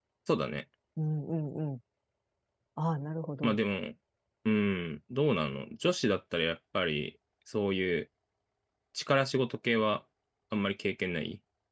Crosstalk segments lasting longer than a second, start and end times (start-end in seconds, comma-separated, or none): none